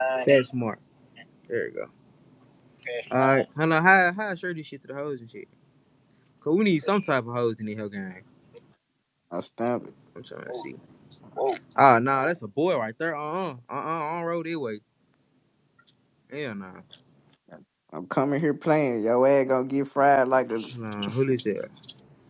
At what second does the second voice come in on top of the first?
none

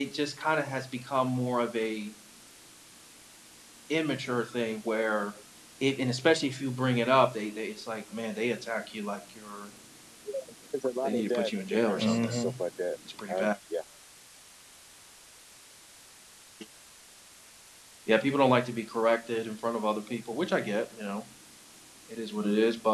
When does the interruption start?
11.0 s

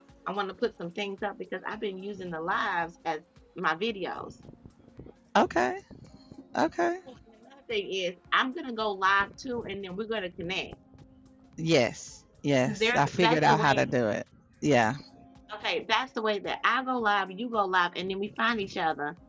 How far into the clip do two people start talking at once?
12.6 s

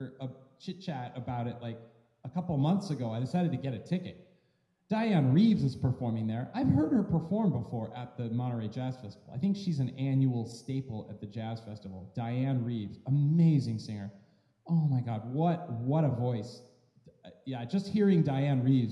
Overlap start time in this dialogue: none

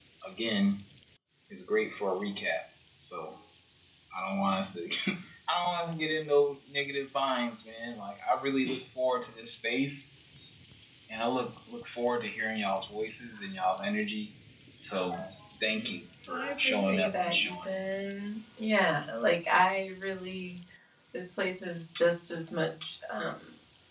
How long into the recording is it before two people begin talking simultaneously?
16.3 s

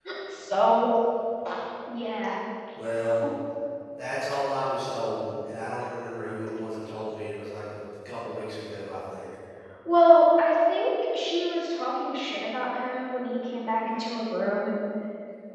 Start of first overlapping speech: none

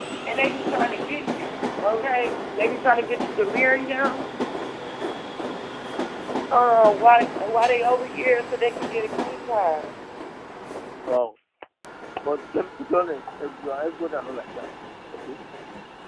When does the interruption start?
none

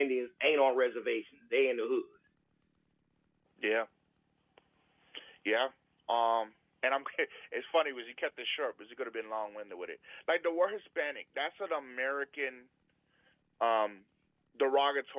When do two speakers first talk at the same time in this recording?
none

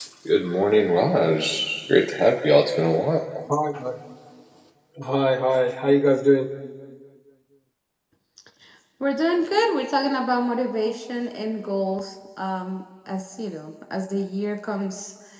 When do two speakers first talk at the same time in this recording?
none

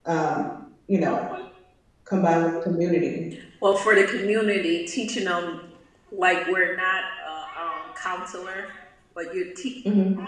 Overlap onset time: none

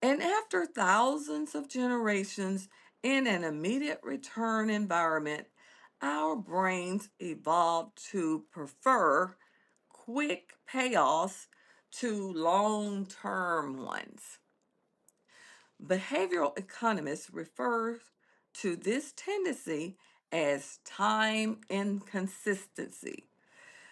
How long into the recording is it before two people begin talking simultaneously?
none

